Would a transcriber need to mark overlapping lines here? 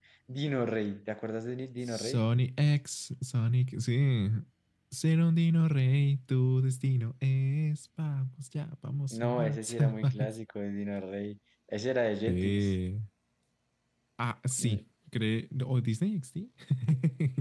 Yes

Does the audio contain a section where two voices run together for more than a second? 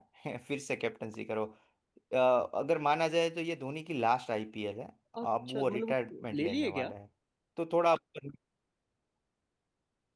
Yes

